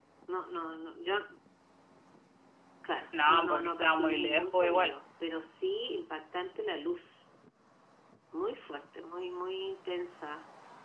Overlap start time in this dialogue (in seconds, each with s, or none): 3.2 s